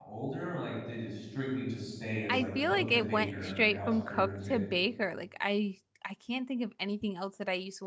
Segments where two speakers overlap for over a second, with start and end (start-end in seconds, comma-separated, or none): 2.3-4.6